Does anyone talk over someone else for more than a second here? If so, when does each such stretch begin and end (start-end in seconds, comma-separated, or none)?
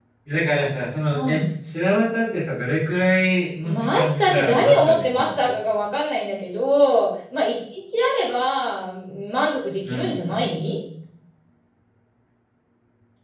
3.6-5.5